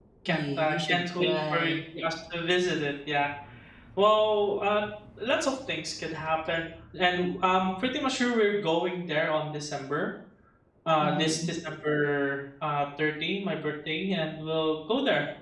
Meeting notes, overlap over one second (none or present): present